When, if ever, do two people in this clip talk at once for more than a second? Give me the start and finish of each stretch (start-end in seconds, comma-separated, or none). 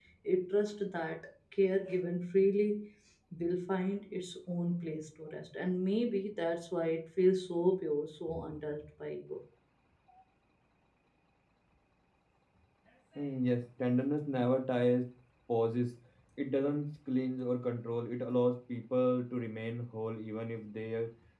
none